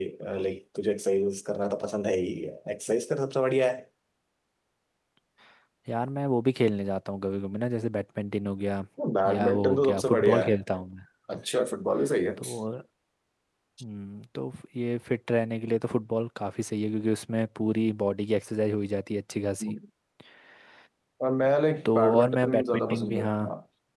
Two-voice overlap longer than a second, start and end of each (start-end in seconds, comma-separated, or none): 9.2-10.5, 21.9-23.3